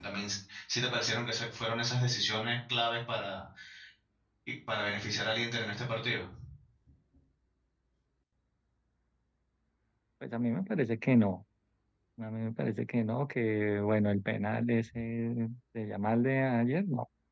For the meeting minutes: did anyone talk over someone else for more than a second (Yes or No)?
No